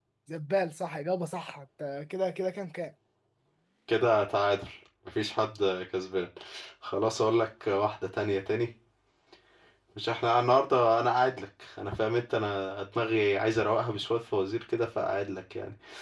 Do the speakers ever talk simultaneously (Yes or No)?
No